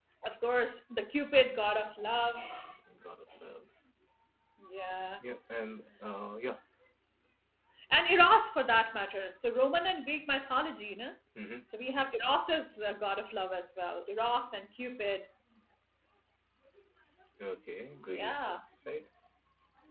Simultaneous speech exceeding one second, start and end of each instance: none

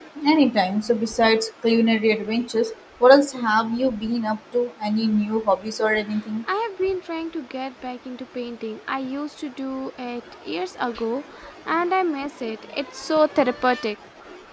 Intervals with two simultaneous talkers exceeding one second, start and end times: none

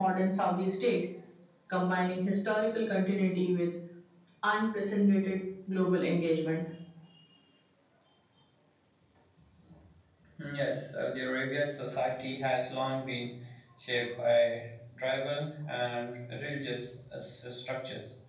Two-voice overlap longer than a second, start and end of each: none

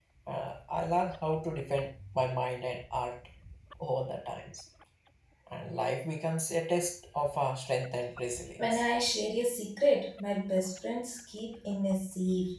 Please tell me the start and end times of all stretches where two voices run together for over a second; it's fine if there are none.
none

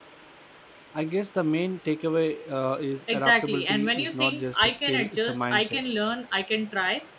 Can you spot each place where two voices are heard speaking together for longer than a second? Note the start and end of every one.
3.1-5.8

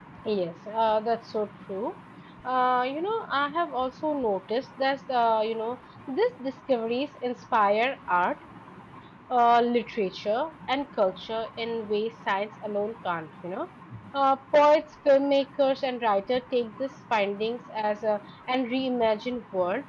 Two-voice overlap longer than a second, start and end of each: none

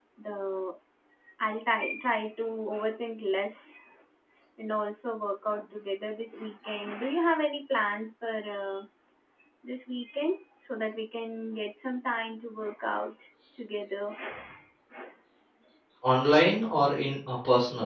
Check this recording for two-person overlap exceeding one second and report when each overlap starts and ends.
none

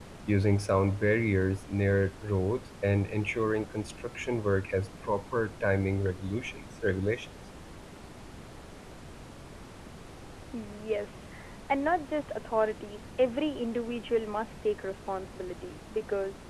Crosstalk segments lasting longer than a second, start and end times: none

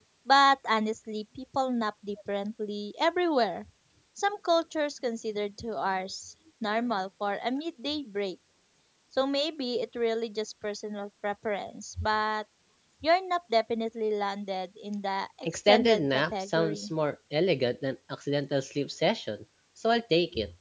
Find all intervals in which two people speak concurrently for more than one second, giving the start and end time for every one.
15.5-16.9

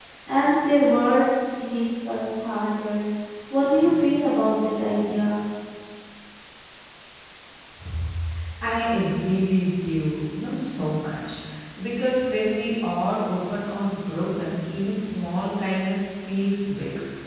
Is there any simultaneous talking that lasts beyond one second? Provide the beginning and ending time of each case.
none

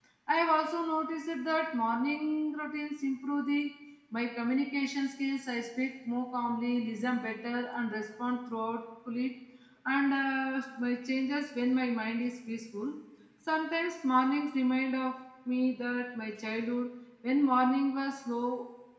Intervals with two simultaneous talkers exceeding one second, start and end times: none

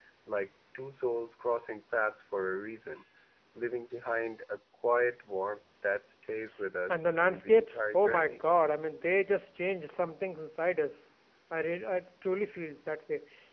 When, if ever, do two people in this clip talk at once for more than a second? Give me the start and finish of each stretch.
6.9-8.4

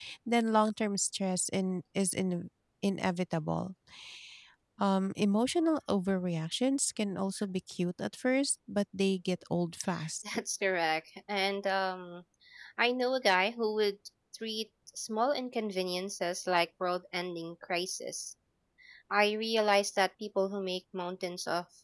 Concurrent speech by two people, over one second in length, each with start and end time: none

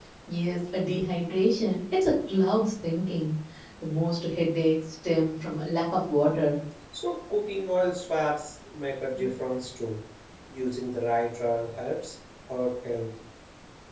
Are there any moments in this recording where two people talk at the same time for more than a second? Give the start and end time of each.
none

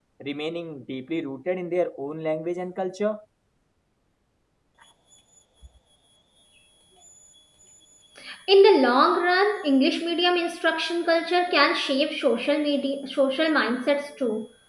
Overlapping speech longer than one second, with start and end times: none

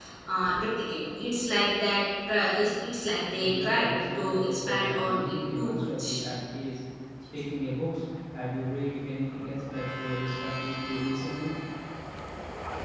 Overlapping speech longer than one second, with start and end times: 3.4-6.2

